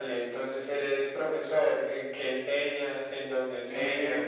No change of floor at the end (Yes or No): No